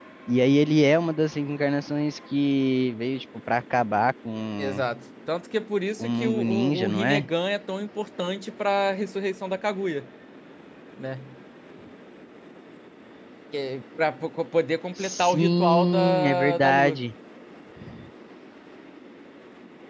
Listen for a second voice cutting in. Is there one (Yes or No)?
Yes